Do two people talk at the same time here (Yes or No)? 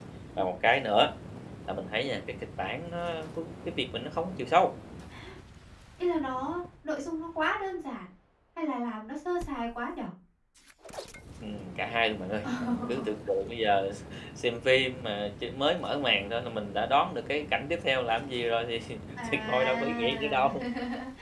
Yes